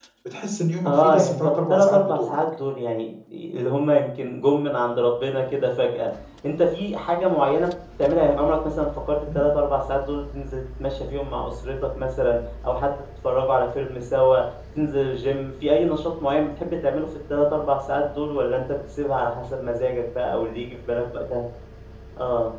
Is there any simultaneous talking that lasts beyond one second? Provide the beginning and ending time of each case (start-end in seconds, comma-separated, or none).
0.8-2.4